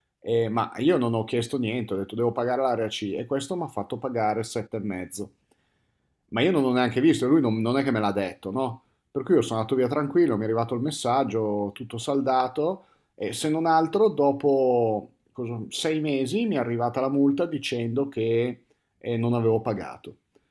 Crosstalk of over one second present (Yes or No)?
No